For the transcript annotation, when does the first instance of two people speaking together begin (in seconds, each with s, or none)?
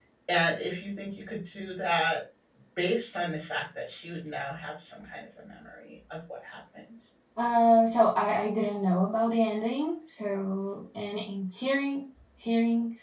none